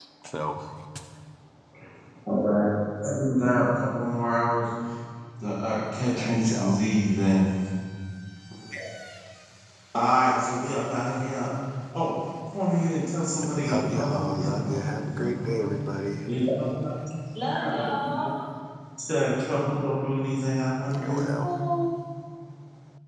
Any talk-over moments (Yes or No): Yes